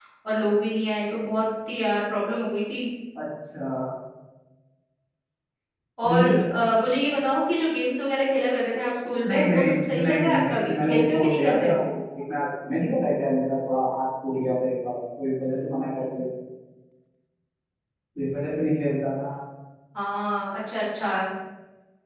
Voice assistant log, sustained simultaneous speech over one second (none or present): present